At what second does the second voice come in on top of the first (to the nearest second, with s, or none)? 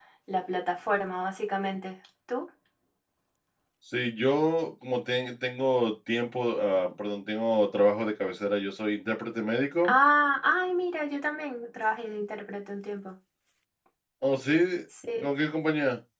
none